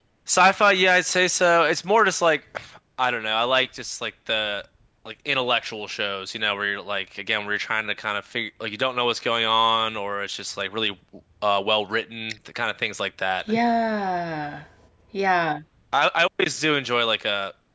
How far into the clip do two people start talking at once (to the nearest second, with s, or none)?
none